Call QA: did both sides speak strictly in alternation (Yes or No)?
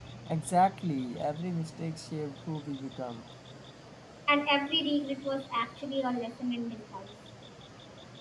Yes